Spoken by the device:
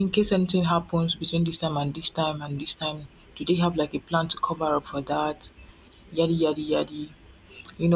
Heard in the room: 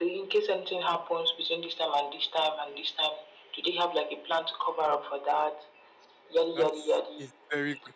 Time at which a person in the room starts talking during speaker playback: 6.5 s

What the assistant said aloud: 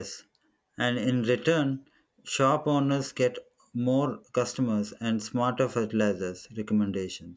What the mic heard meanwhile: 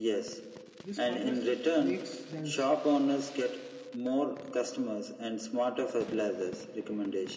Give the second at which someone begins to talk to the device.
0.8 s

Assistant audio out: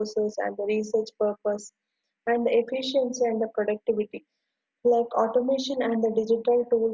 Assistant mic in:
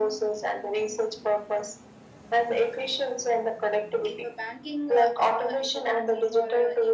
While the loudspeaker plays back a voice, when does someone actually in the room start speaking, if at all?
4.0 s

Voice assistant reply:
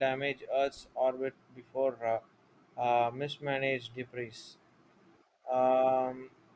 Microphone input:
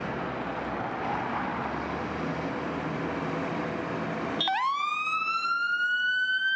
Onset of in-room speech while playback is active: none

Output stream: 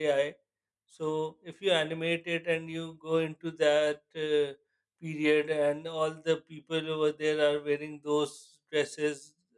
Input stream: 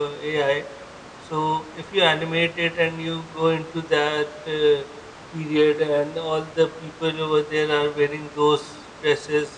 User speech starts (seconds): none

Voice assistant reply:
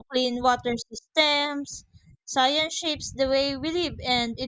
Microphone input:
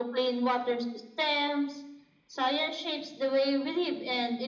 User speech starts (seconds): none

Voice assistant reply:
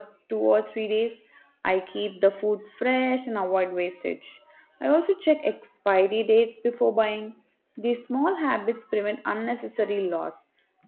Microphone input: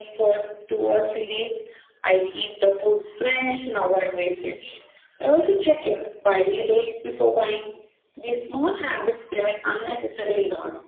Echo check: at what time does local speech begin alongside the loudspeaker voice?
none

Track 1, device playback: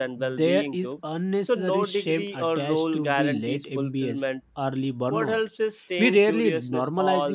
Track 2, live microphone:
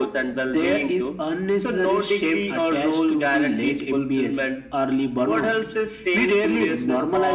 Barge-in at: none

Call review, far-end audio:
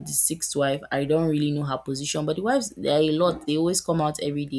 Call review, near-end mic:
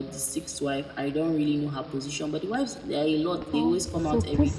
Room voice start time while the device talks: 3.5 s

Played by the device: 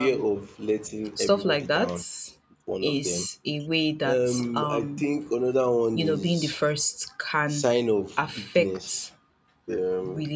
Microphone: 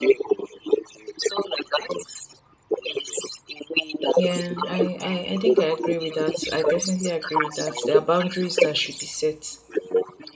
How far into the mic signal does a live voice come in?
4.2 s

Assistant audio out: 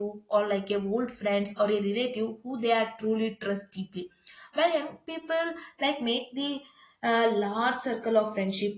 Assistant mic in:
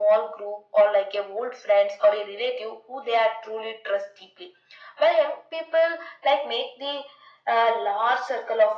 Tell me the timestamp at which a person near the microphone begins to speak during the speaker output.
none

